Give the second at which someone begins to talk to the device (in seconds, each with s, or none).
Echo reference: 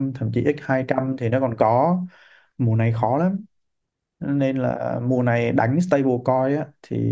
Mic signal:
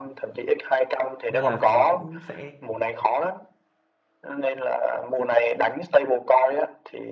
1.3 s